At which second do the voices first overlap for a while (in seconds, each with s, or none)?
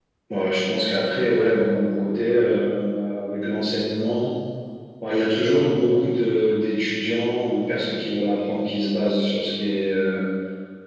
none